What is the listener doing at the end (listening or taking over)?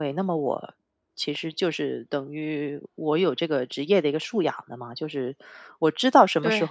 listening